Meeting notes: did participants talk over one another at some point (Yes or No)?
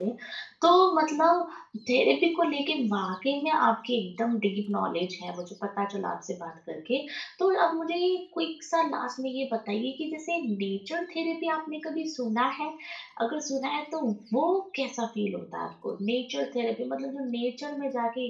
No